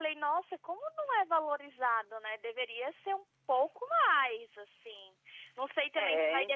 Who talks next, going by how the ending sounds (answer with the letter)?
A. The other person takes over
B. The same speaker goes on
B